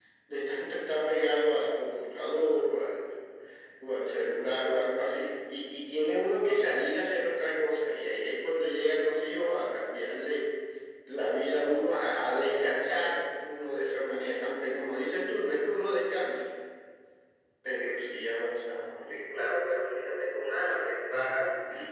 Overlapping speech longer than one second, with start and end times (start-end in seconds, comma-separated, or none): none